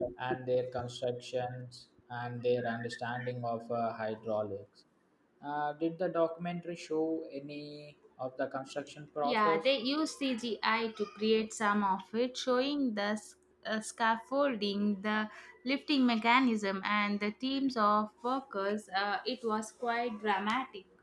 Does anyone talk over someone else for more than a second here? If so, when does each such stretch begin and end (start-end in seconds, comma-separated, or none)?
none